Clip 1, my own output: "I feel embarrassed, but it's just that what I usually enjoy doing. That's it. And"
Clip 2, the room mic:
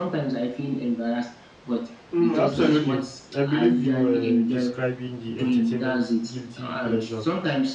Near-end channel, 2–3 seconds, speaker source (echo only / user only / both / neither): both